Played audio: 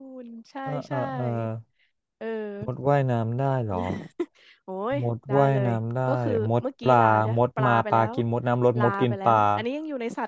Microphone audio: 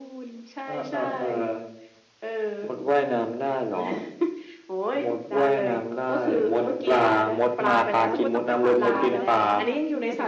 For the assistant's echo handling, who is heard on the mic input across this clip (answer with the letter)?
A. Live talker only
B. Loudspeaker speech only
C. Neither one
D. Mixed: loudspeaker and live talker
D